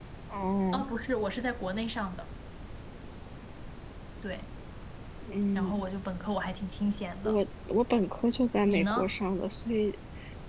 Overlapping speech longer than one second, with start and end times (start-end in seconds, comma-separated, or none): none